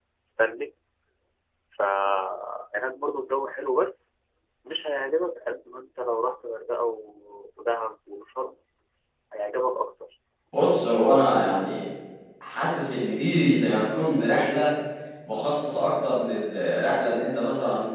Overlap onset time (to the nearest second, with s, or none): none